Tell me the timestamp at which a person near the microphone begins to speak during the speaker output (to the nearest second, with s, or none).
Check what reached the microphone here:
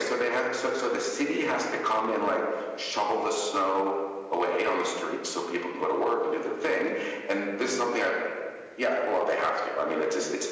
none